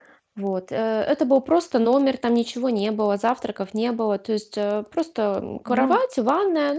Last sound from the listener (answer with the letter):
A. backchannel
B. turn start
A